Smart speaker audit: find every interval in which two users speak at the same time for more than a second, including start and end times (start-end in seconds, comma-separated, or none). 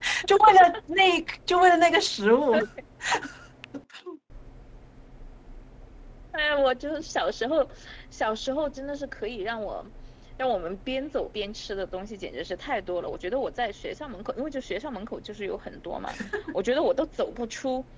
none